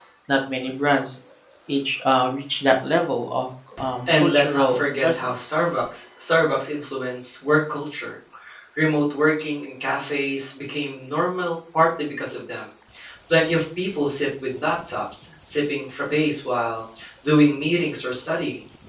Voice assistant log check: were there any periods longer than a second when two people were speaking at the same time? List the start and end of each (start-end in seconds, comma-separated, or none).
4.1-5.5